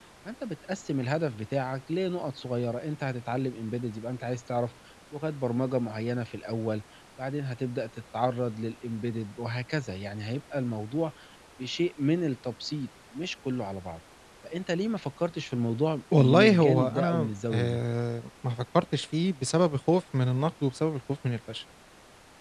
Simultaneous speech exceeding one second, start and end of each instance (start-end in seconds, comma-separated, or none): 16.2-17.8